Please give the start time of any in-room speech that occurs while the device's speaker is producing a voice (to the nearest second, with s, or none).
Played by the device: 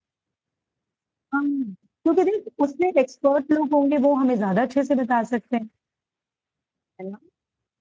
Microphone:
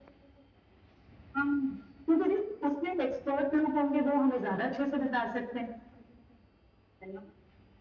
none